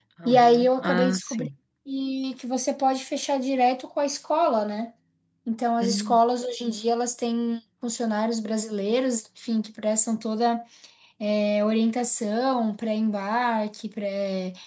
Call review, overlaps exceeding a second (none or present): present